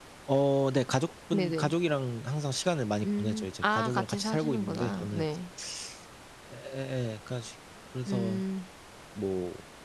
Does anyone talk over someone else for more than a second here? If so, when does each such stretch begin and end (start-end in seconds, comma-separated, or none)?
3.0-5.3